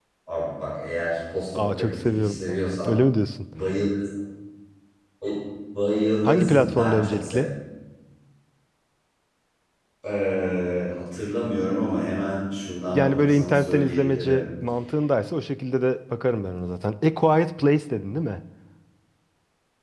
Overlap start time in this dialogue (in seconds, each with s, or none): 1.6 s